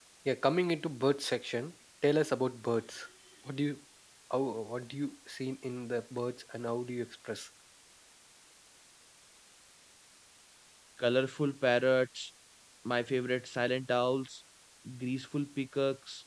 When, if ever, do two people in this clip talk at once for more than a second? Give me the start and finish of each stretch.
none

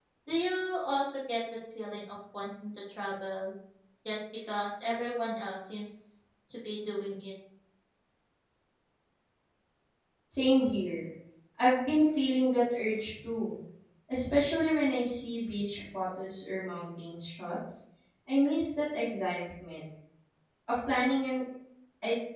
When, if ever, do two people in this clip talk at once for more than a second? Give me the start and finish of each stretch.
none

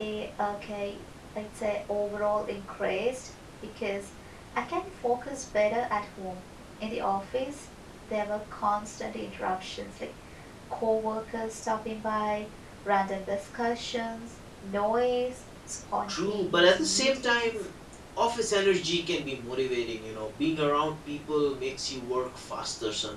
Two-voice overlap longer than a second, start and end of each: 16.1-17.6

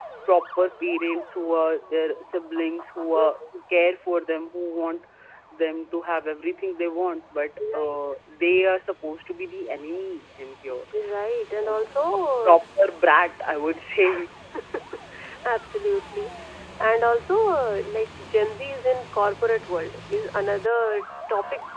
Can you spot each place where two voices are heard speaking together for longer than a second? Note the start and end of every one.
none

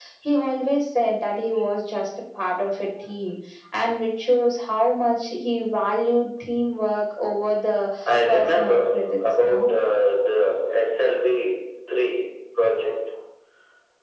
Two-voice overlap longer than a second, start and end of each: 8.3-9.6

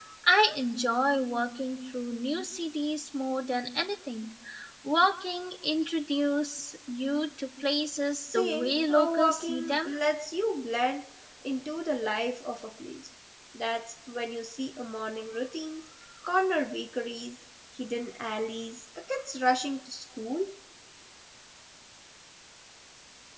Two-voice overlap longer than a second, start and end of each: 8.2-9.9

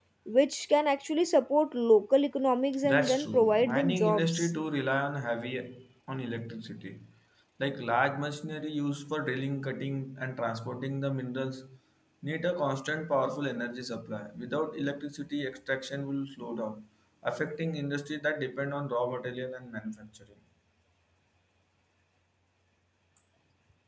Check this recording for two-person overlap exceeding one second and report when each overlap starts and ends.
2.8-4.5

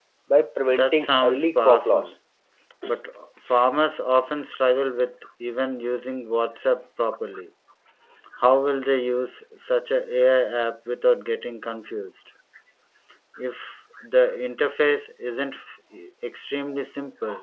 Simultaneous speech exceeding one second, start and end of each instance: 0.7-2.1

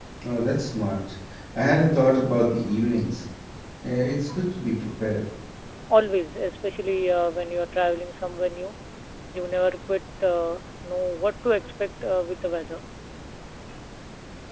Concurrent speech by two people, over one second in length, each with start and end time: none

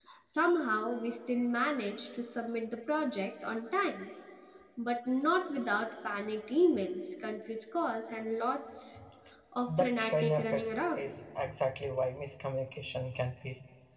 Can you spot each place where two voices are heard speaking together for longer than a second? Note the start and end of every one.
9.7-11.0

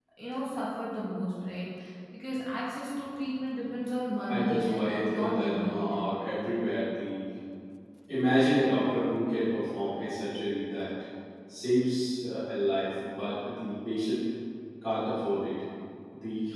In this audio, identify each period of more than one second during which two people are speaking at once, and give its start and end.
4.3-5.9

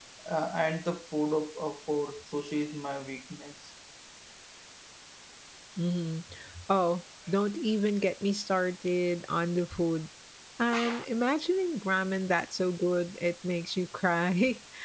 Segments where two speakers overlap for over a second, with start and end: none

